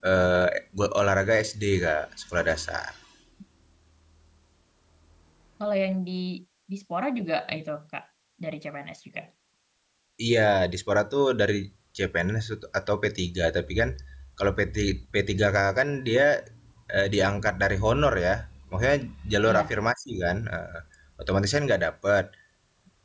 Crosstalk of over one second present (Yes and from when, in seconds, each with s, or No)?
No